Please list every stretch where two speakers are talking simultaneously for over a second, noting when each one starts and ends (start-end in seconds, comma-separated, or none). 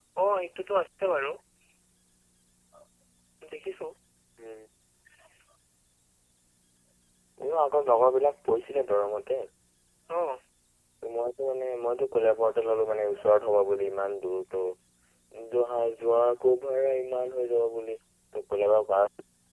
none